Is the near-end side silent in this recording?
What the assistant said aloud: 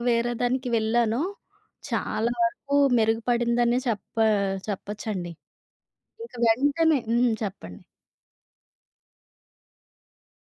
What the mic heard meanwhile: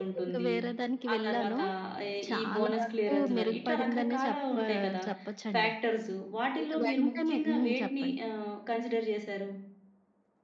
No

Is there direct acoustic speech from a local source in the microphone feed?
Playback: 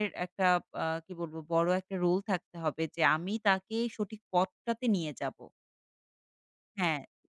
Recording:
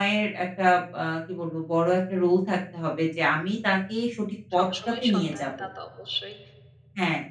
Yes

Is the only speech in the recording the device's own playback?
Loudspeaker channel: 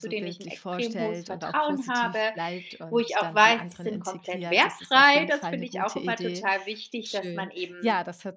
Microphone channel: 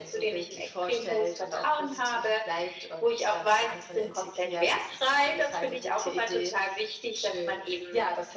Yes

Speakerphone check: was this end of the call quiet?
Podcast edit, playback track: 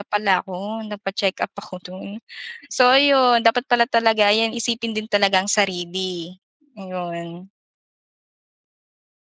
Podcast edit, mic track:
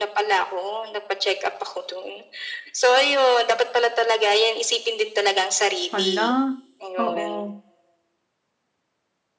No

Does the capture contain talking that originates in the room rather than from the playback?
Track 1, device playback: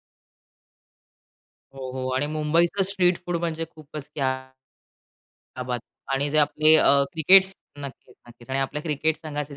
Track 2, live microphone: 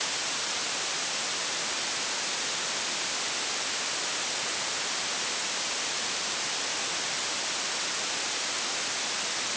No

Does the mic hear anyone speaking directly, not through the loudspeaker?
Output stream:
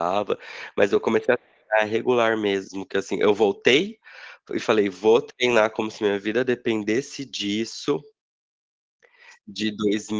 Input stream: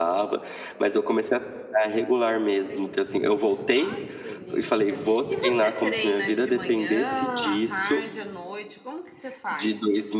Yes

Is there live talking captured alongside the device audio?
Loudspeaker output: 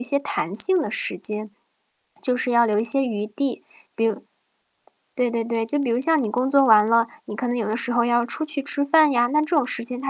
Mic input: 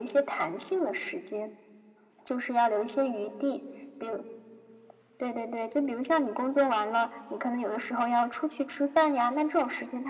No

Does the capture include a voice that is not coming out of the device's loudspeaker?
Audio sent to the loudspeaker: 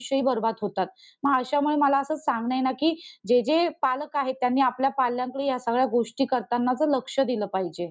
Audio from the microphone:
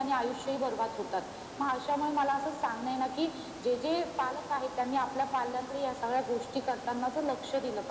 No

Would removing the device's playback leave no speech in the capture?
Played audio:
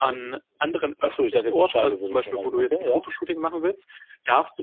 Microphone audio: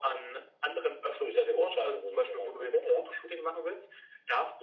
Yes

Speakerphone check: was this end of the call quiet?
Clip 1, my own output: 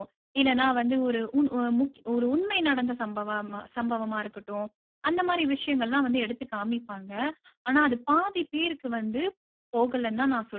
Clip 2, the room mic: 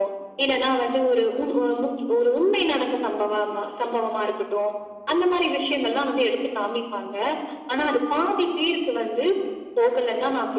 Yes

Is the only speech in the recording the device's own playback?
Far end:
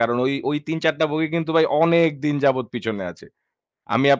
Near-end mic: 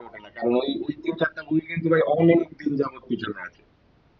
Yes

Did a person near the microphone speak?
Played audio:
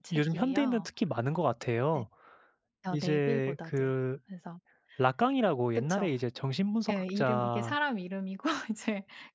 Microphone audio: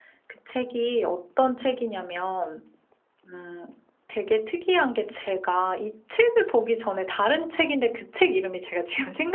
Yes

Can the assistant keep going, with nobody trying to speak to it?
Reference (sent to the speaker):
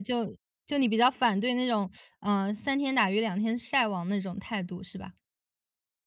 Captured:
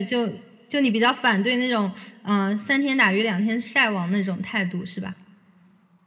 Yes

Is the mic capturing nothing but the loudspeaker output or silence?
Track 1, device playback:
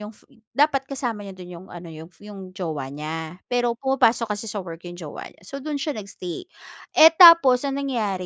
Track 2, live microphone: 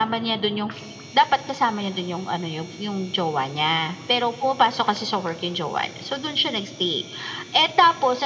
Yes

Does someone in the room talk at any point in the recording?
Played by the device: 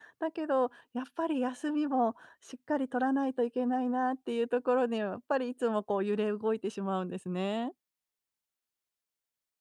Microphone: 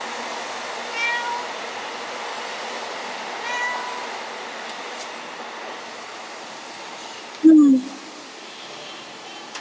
Yes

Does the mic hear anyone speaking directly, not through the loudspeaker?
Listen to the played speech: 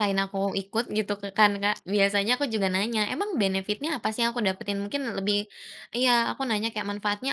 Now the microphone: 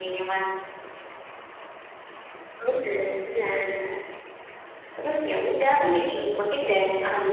Yes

